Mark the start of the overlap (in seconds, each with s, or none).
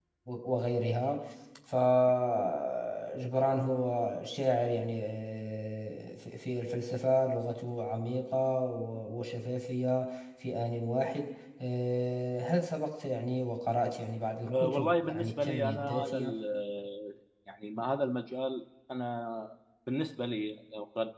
14.4 s